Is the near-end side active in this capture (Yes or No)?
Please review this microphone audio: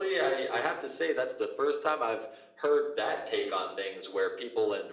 No